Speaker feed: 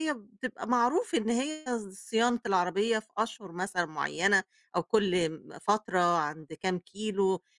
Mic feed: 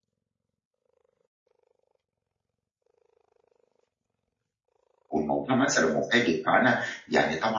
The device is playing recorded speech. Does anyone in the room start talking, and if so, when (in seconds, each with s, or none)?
5.1 s